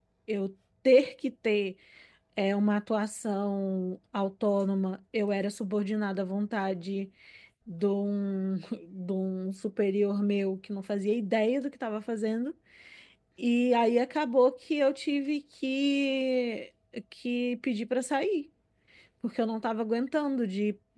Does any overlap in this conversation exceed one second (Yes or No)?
No